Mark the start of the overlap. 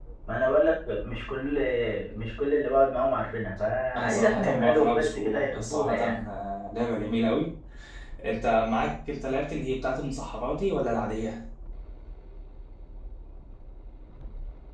3.9 s

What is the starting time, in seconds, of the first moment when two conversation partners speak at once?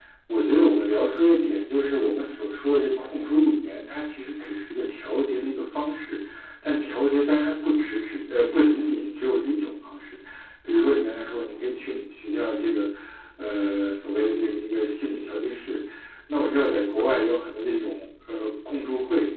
none

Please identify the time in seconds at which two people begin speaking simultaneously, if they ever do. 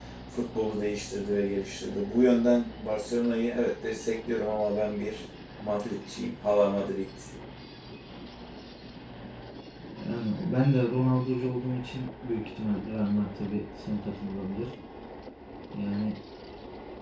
none

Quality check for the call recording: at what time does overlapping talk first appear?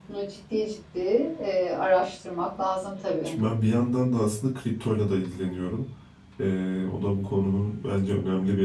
none

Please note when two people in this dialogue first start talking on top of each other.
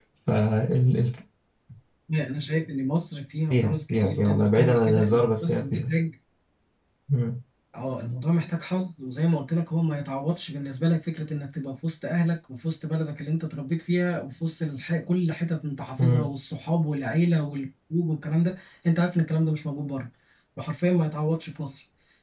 3.5 s

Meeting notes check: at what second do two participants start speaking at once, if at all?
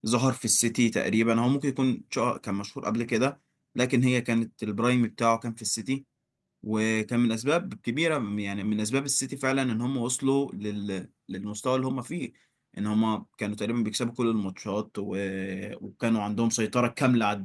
none

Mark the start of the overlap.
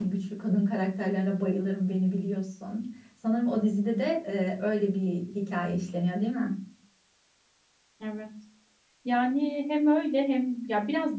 none

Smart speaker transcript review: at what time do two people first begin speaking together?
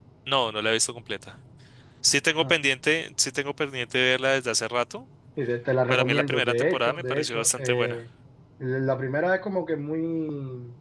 5.9 s

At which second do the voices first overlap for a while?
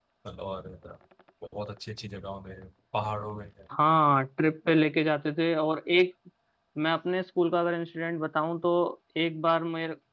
none

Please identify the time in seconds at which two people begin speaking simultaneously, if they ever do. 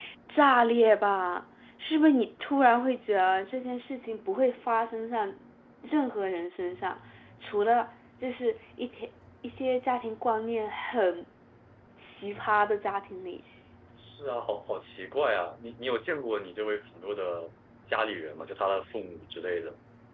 none

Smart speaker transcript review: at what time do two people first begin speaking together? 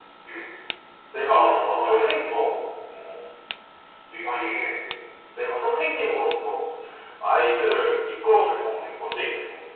1.3 s

